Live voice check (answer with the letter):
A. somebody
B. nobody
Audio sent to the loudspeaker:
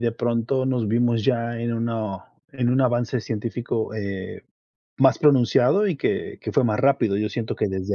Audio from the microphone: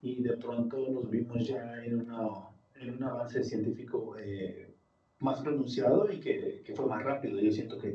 B